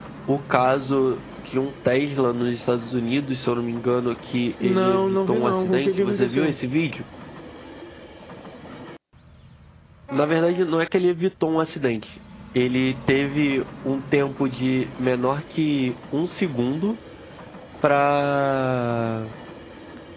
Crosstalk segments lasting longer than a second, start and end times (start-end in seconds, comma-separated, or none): 4.6-6.5